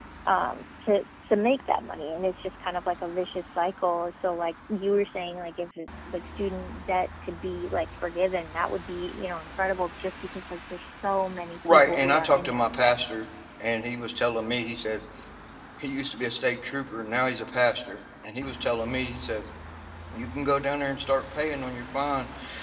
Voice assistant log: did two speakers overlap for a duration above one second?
Yes, from 11.7 s

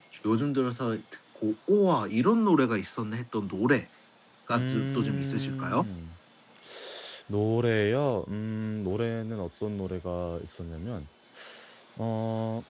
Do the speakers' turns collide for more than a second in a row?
Yes, from 4.5 s

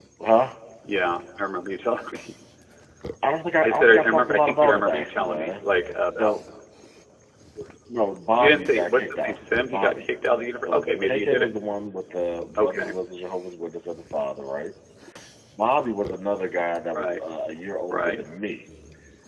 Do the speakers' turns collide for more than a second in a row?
Yes, from 3.6 s

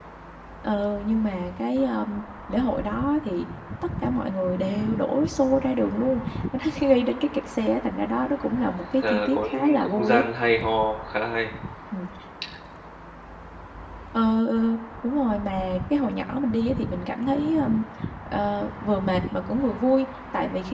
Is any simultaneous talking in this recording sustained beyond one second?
Yes, from 9.0 s

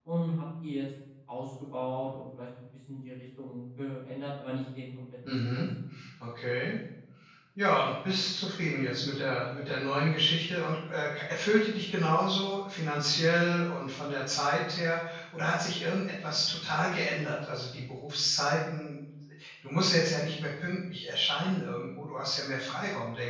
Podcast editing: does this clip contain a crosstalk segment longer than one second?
No

